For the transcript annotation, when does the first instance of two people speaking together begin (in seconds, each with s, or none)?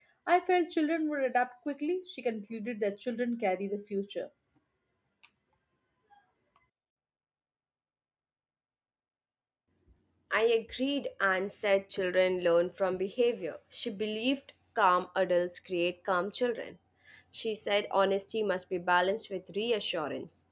none